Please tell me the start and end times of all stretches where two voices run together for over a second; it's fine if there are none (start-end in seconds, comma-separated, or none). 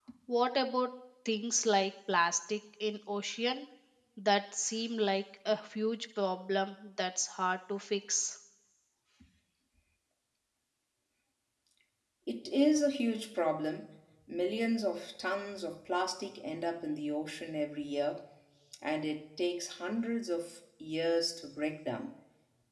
none